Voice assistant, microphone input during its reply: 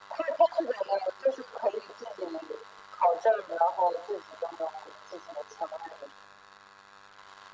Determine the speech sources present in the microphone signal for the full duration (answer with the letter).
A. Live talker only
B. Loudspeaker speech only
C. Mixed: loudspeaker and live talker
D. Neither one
B